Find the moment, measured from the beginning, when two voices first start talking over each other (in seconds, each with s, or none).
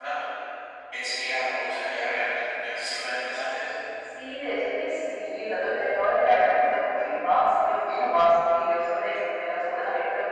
none